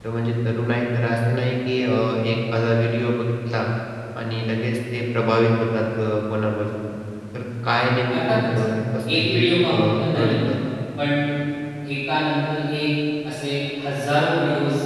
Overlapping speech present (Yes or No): Yes